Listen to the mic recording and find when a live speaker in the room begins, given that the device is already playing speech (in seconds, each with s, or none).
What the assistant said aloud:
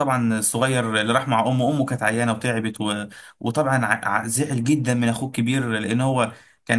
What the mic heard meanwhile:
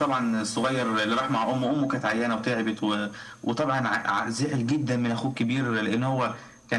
none